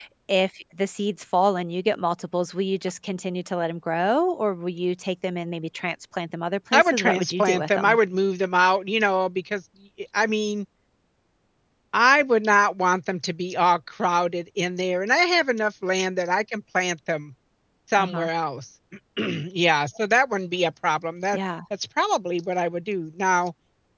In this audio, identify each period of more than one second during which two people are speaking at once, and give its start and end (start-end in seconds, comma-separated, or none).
6.7-8.0